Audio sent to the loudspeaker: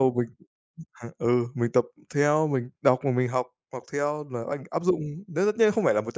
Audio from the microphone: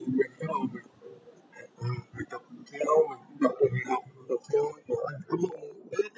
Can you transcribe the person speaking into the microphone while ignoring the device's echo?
none

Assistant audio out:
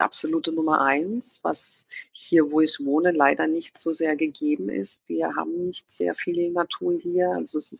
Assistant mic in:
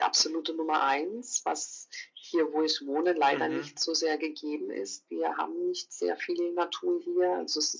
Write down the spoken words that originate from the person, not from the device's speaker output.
Mhm.

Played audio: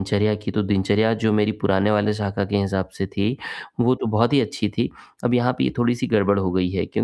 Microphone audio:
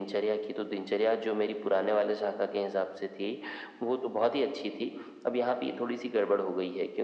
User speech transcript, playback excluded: none

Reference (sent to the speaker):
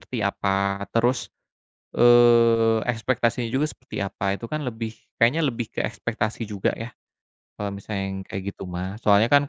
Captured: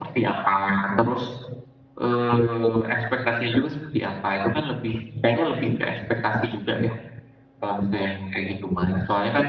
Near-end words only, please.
none

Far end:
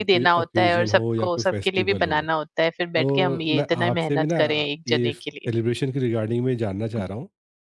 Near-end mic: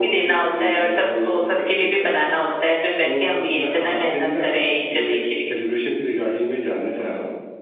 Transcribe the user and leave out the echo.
none

